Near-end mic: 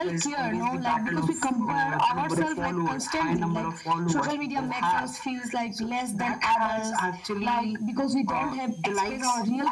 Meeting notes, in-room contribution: none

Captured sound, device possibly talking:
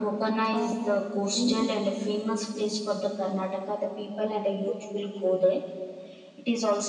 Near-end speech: present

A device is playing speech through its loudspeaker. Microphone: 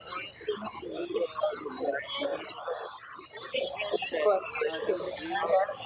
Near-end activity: present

